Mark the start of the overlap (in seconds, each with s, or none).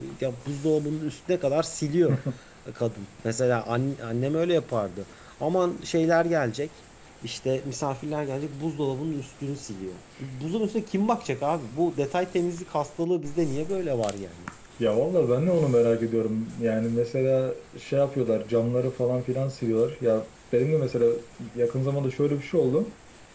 none